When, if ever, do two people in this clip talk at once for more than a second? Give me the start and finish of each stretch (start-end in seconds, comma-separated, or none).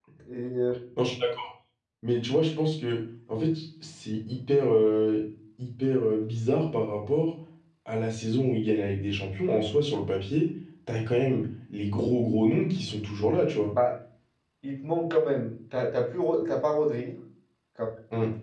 none